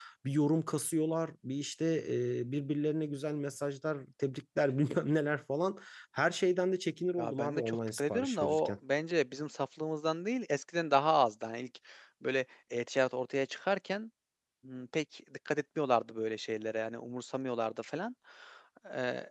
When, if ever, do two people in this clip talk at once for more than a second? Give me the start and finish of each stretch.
7.2-8.7

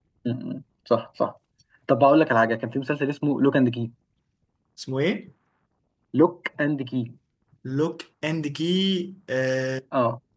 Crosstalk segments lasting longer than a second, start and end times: none

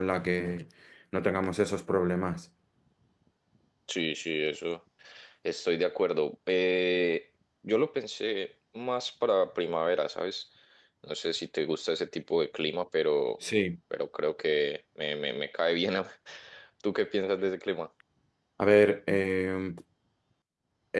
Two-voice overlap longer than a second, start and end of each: none

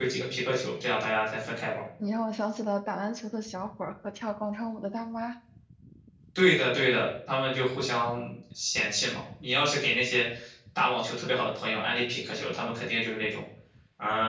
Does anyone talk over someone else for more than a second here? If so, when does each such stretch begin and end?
none

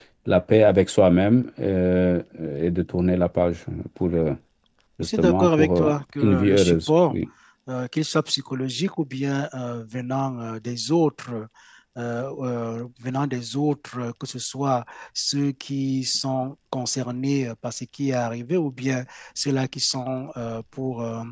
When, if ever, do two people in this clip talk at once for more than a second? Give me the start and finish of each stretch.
5.0-7.1

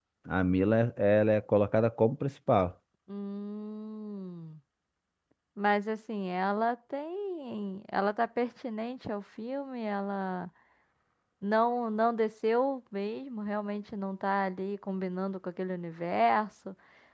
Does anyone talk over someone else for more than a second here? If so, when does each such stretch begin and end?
none

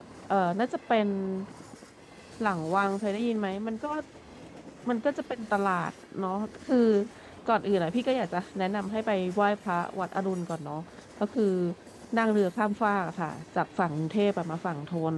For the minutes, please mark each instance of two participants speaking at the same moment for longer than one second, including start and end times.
none

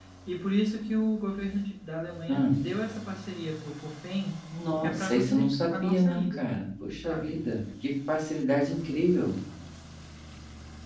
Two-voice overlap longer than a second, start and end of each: 4.8-6.5

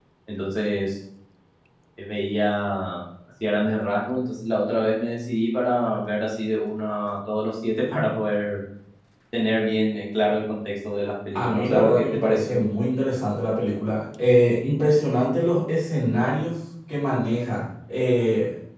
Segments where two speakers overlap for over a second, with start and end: 11.4-12.6

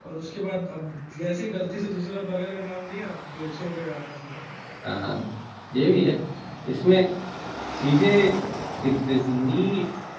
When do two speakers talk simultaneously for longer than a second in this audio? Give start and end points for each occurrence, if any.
none

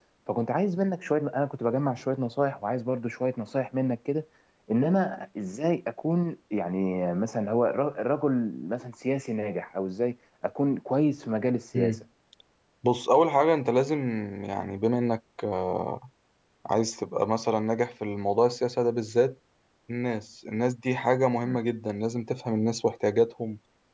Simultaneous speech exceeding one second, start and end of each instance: none

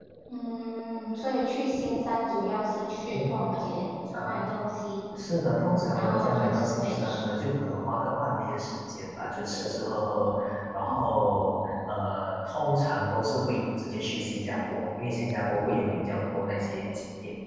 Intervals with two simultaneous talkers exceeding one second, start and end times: 5.9-7.4

